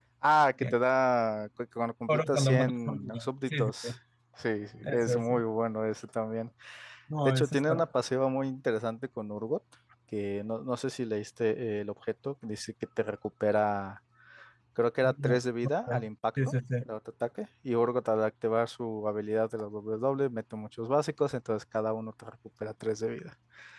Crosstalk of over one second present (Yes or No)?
Yes